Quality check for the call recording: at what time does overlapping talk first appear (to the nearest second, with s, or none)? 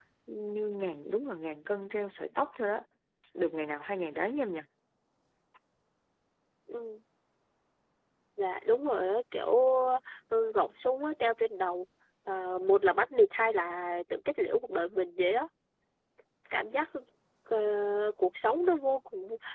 none